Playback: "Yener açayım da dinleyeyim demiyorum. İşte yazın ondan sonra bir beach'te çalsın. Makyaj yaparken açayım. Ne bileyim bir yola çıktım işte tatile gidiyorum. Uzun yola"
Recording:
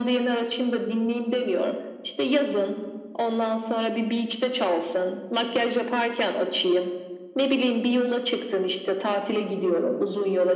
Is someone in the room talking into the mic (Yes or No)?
No